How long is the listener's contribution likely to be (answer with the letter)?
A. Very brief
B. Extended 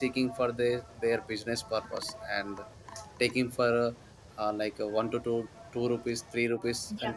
B